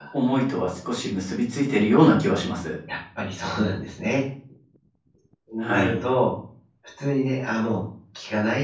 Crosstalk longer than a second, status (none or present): none